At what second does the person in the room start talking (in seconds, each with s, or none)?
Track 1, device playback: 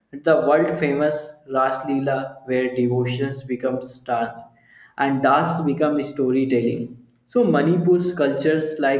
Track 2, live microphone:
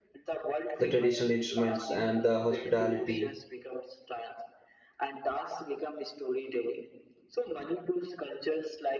0.8 s